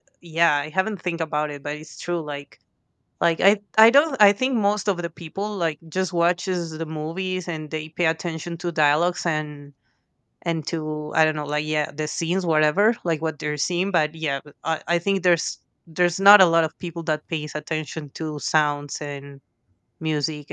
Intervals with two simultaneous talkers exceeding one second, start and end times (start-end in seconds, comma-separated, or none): none